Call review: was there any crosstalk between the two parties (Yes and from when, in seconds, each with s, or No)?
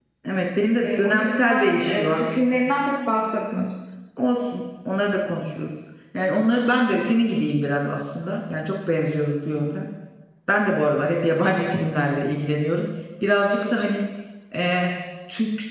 Yes, from 0.8 s